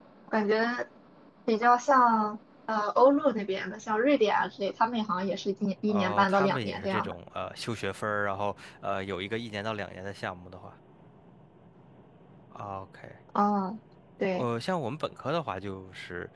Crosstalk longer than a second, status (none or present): present